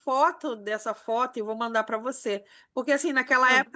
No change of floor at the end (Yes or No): Yes